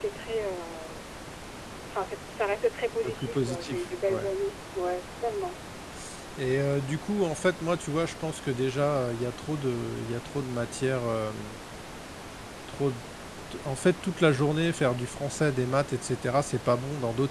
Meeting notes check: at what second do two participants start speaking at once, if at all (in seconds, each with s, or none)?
3.0 s